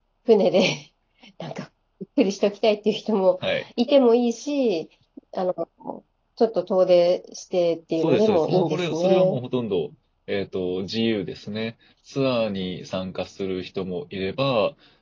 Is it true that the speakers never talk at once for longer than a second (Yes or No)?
No